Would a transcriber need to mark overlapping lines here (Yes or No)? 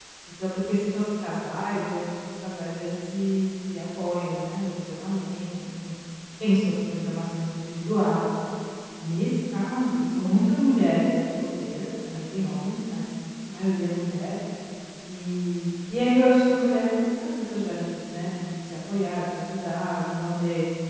No